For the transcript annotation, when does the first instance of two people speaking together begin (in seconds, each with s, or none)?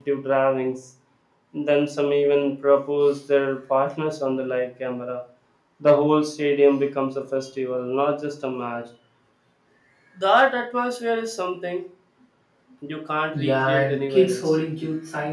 13.3 s